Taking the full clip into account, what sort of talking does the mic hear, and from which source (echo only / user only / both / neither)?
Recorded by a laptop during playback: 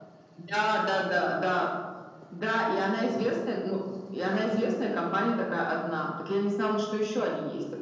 both